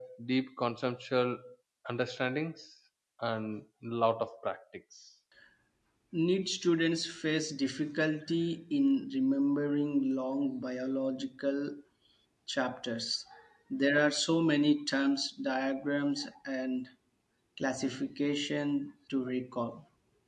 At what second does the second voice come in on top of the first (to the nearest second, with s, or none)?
none